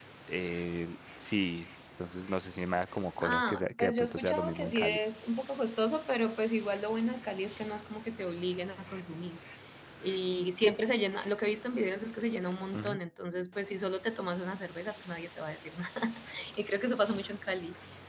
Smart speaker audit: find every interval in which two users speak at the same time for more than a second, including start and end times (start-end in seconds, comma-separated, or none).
3.2-5.0